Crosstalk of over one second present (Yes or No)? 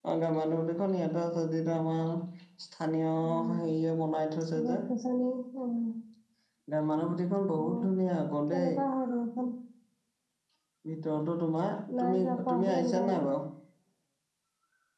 Yes